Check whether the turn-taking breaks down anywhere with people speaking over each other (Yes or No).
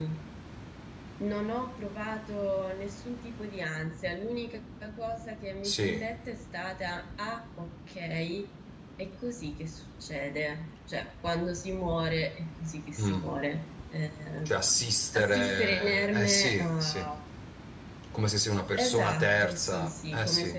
Yes